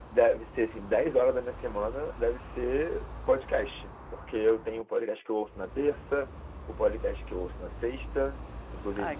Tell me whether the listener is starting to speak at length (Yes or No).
No